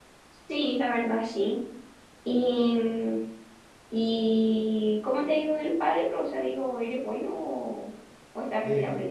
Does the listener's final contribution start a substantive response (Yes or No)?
Yes